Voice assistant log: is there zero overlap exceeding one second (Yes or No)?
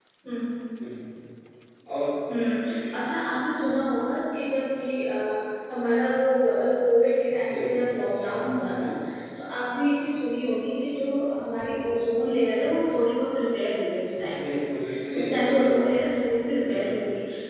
No